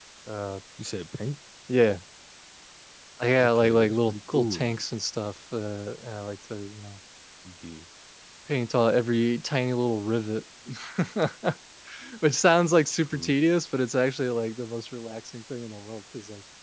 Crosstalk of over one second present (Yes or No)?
Yes